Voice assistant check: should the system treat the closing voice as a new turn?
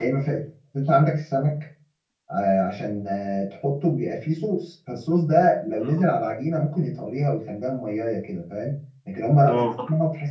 No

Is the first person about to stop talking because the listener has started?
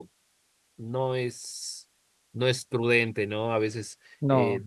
No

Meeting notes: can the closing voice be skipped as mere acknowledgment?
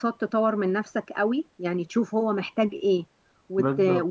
Yes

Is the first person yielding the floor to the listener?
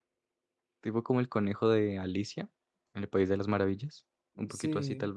Yes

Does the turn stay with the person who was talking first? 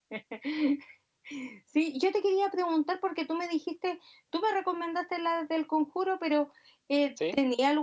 Yes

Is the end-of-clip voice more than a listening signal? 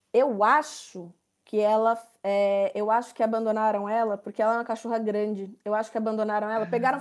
No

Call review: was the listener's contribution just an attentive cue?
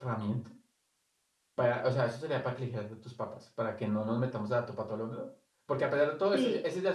Yes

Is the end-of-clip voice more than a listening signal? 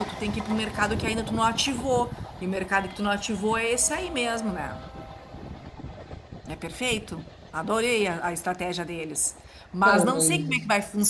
No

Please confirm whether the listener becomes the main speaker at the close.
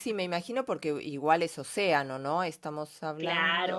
No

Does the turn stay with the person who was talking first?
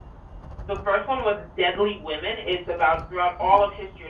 Yes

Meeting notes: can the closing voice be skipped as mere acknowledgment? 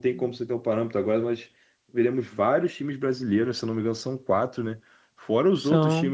Yes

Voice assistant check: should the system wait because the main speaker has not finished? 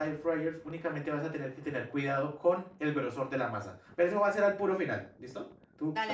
Yes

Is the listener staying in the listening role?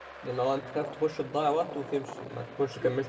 No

